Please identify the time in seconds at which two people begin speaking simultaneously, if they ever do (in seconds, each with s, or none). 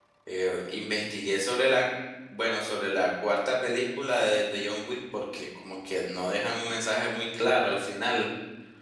none